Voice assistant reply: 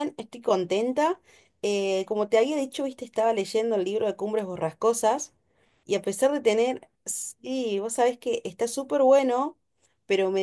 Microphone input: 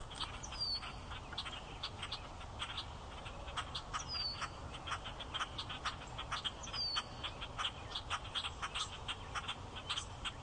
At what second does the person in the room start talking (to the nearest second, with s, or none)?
none